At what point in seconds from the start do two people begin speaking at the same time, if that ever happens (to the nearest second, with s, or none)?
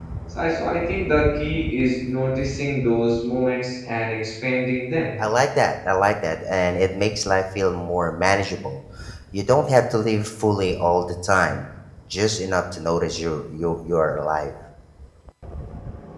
none